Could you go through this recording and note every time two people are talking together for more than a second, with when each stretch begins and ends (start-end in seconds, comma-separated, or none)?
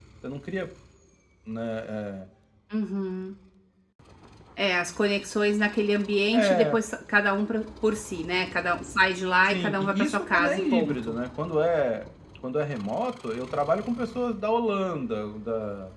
9.5-11.2